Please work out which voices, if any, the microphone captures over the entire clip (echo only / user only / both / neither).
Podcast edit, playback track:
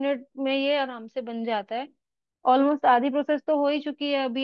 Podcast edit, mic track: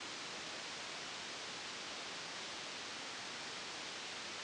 neither